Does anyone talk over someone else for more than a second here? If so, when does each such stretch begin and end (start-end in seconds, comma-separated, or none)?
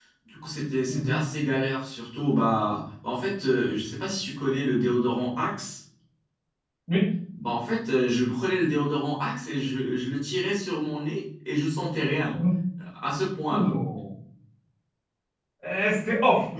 none